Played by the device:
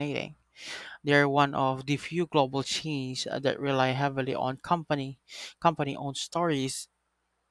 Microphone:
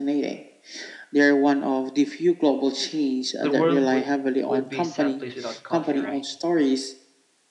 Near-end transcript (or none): The world would would be a sad place without coffee, right?